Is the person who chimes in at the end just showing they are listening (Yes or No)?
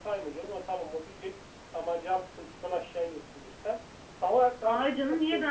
No